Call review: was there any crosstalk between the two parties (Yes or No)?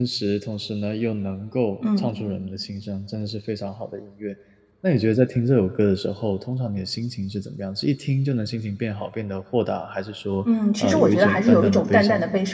Yes